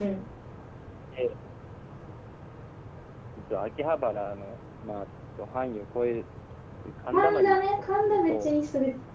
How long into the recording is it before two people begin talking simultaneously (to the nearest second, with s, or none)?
7 s